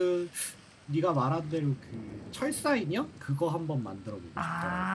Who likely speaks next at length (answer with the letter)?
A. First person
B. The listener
B